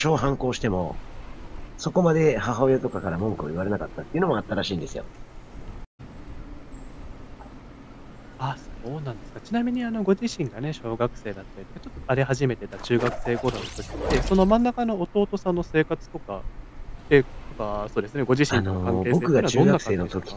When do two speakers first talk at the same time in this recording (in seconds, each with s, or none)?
18.5 s